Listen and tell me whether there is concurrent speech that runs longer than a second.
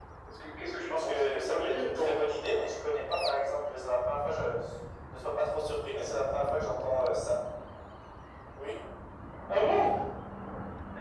Yes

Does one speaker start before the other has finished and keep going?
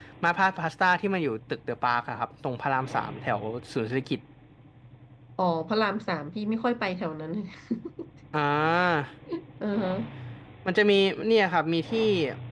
No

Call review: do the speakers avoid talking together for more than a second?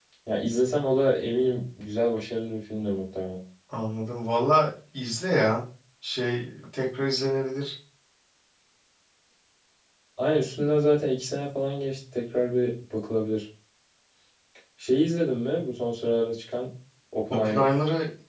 Yes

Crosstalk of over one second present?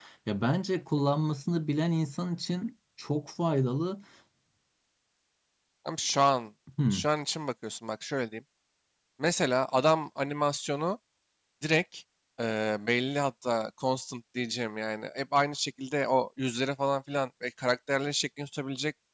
No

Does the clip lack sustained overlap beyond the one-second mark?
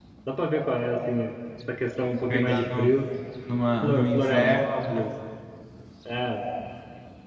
No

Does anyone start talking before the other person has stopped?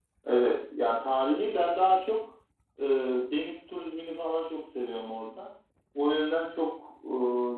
No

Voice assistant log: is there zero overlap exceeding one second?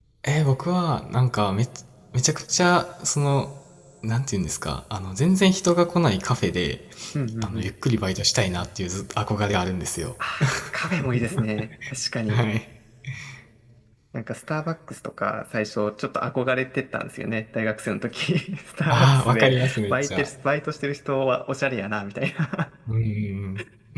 No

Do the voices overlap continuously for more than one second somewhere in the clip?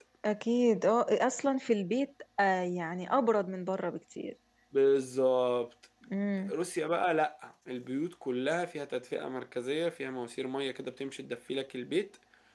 No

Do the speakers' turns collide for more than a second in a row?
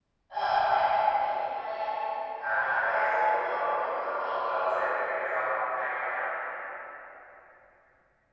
Yes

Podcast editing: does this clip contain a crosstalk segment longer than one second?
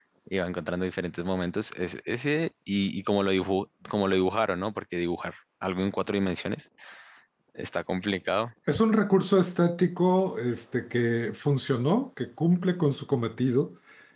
No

